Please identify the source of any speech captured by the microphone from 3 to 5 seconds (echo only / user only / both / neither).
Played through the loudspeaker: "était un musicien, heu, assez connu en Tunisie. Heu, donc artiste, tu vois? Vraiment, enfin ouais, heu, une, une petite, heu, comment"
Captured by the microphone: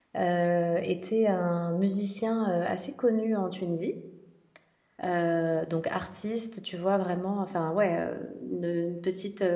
echo only